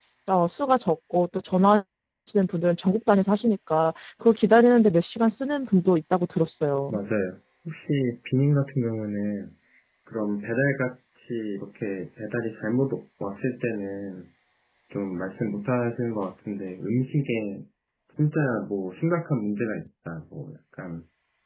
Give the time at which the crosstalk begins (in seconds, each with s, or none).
none